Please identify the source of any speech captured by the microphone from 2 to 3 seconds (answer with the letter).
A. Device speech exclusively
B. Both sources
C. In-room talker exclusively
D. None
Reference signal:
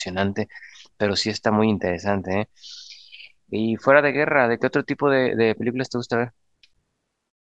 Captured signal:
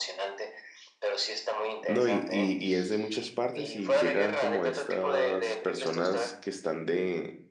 B